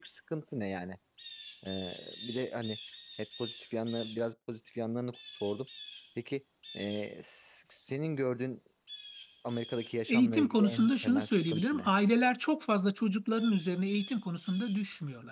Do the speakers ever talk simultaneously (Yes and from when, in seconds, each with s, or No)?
Yes, from 10.1 s